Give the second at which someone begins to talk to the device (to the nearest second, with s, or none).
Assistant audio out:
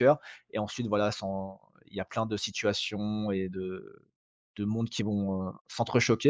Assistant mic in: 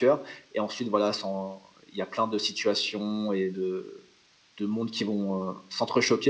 none